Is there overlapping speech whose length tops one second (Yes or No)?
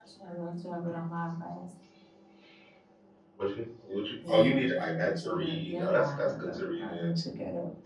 Yes